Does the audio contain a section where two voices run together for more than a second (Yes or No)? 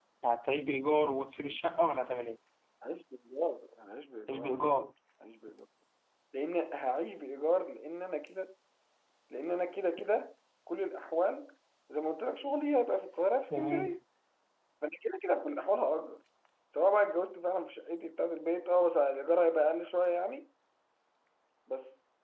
No